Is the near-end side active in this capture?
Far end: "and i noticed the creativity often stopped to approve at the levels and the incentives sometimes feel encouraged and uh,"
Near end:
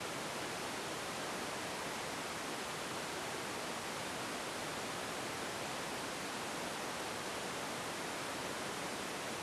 No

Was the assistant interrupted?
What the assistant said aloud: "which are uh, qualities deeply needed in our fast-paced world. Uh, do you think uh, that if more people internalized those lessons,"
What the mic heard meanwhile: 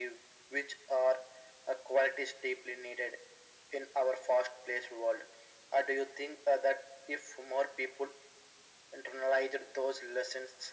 No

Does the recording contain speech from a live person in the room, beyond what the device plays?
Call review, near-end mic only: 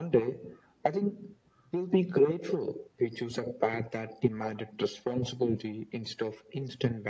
No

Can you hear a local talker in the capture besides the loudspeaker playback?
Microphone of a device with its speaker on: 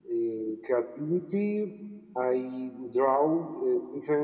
No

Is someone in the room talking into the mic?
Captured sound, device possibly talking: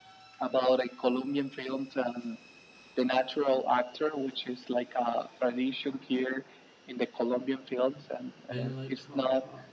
Yes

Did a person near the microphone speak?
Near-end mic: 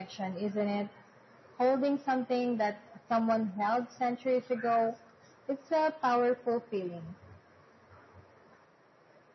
No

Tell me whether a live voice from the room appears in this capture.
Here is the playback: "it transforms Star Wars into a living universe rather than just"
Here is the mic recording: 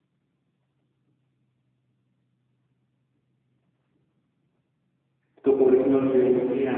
Yes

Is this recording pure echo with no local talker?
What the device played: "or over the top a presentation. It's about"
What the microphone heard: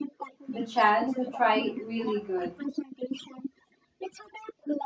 No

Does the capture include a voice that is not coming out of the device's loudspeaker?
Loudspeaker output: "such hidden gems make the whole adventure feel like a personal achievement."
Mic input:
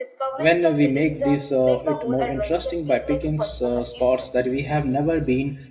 Yes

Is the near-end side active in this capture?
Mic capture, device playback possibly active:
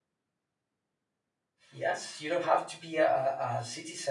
Yes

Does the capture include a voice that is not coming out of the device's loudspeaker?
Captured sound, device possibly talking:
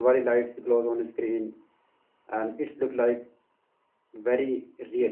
Yes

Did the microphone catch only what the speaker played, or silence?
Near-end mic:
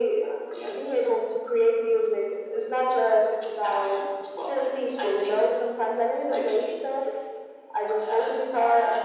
Yes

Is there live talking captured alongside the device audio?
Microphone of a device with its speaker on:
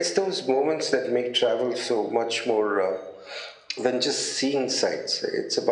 No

